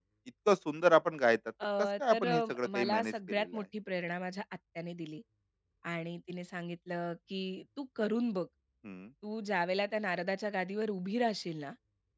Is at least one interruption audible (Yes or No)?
Yes